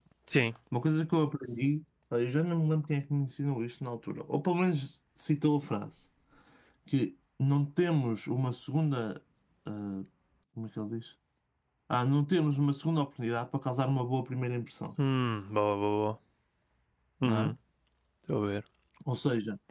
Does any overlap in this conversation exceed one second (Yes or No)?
No